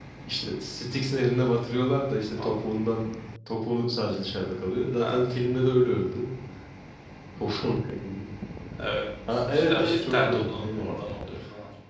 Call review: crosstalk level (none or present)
present